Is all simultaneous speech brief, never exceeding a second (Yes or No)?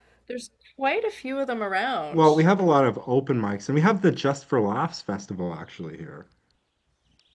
Yes